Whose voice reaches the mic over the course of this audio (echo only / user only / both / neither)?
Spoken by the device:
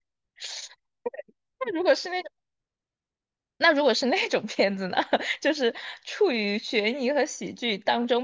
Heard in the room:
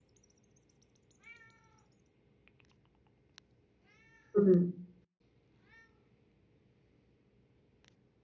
user only